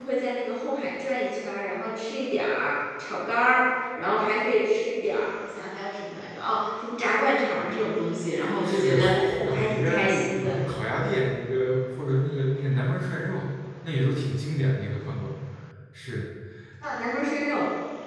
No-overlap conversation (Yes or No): No